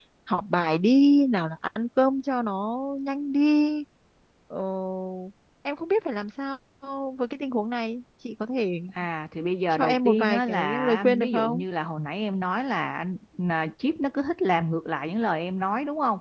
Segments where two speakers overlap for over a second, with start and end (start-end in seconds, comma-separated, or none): 9.7-11.6